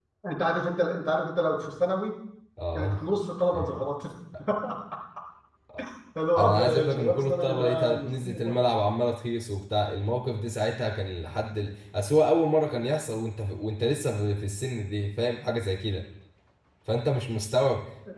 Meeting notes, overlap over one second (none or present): present